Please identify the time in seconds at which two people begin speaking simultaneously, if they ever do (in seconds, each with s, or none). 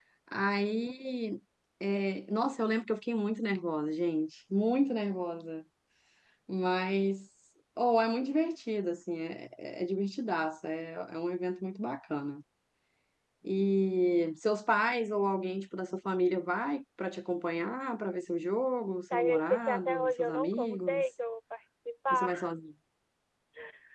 19.1 s